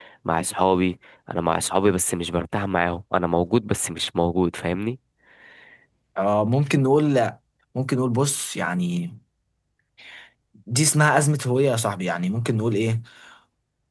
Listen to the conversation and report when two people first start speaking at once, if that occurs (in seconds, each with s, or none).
none